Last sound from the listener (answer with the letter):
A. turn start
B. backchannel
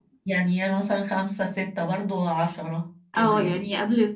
A